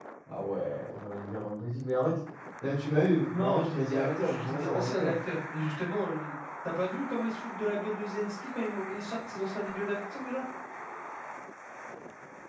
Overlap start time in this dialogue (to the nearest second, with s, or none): 3 s